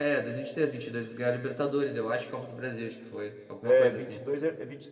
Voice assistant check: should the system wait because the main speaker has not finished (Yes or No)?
No